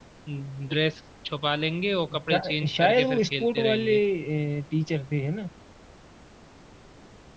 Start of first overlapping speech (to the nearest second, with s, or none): 2 s